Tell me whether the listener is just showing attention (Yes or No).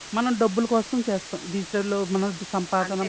No